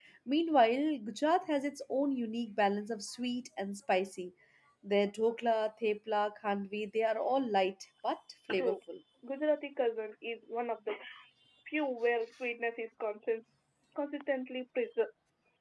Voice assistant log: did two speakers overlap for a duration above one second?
No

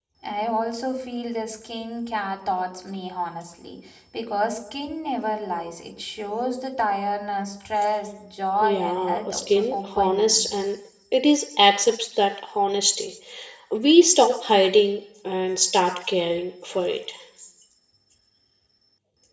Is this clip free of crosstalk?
No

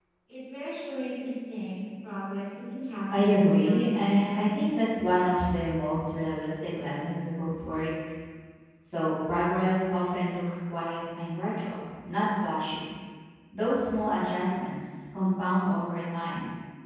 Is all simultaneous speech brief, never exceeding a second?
No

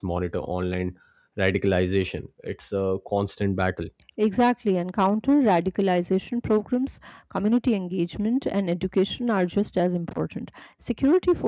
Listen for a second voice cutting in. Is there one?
No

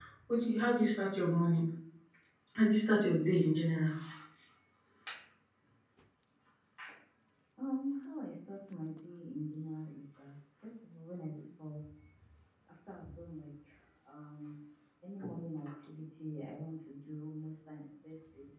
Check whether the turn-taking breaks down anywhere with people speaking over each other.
No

